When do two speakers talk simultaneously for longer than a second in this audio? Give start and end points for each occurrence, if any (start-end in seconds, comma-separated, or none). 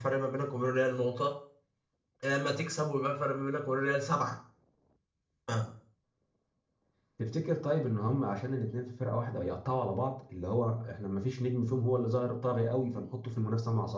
none